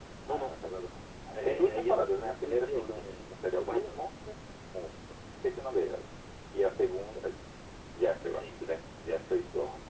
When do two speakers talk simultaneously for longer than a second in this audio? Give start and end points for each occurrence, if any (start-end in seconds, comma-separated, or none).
1.3-4.1